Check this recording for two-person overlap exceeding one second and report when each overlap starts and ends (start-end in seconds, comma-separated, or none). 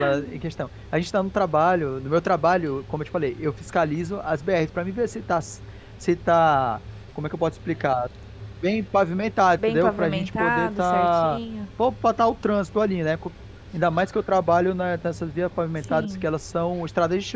9.6-11.4